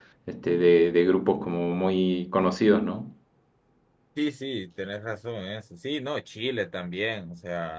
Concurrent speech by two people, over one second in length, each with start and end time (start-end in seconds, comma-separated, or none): none